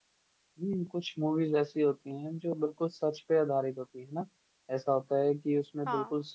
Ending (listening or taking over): listening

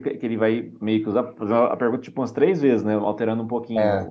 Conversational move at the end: listening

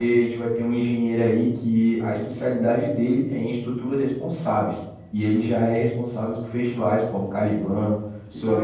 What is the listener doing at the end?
taking over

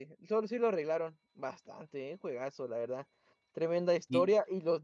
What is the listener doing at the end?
listening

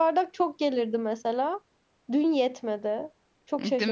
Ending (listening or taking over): taking over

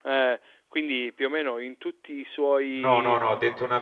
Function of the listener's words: taking over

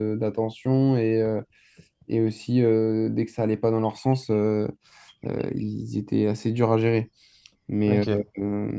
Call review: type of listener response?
listening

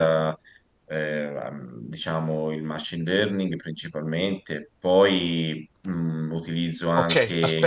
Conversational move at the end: taking over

